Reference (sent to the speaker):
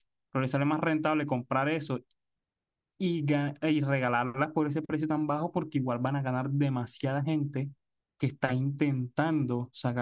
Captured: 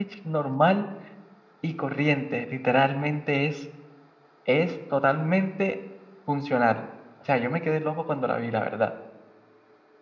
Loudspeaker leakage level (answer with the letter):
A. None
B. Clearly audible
A